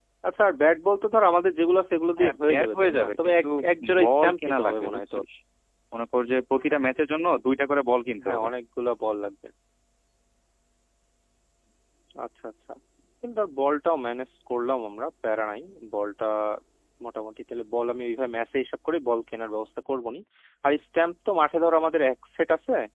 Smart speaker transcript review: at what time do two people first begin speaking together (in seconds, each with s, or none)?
2.2 s